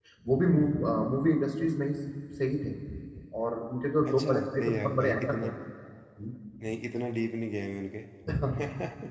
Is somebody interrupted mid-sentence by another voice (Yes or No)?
Yes